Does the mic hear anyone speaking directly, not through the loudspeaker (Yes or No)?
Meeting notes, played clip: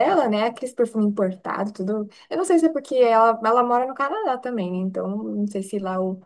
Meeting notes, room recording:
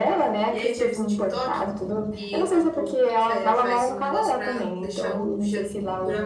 Yes